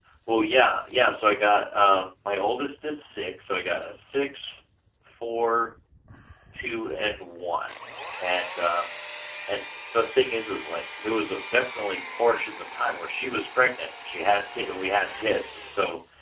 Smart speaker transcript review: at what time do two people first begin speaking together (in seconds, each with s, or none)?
none